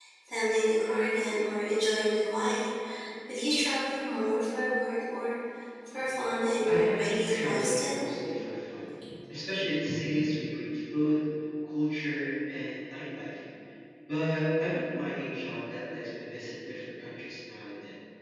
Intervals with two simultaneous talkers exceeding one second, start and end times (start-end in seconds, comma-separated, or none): 6.7-8.1